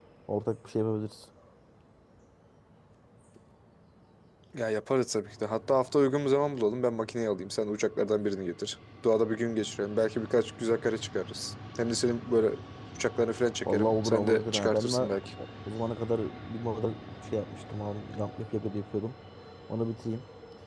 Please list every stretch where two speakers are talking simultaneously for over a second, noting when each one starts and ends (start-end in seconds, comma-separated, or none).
13.7-15.1